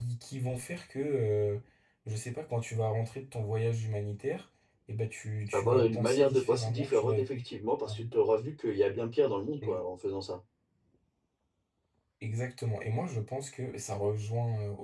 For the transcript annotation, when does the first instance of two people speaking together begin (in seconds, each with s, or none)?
5.5 s